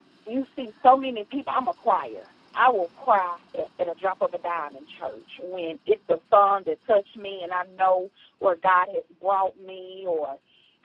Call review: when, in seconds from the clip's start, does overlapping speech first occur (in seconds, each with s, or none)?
none